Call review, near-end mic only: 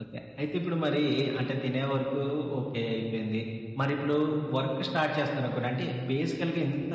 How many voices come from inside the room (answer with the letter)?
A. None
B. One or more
B